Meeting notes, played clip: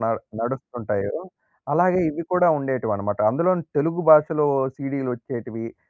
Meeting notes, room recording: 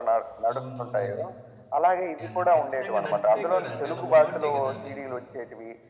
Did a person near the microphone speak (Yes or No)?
Yes